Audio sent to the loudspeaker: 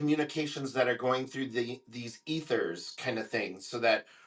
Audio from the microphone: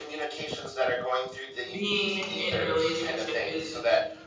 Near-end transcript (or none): being in relationship is